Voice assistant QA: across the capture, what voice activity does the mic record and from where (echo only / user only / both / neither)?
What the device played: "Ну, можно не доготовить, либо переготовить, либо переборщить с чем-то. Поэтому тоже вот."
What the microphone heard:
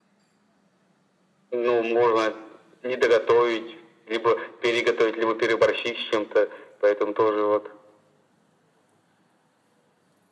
echo only